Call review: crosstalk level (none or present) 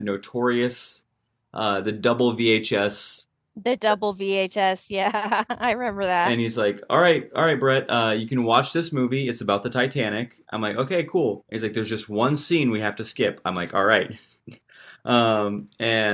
none